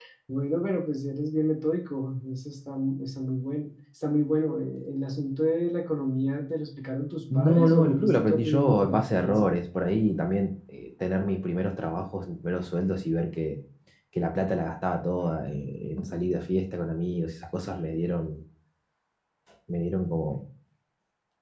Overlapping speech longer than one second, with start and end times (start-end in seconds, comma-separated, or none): 7.3-9.5